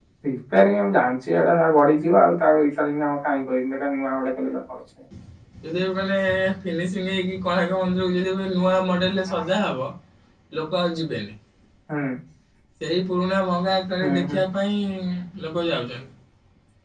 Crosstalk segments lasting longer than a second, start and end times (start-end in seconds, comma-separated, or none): none